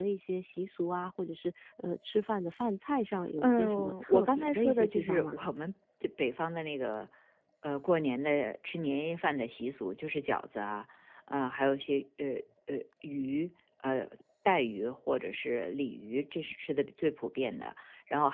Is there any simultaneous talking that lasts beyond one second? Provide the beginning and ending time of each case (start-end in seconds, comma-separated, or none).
3.4-5.4